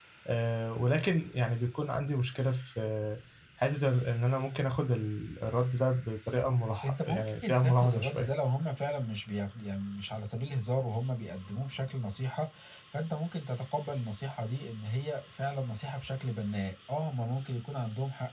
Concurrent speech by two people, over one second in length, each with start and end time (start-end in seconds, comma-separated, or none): 6.8-8.3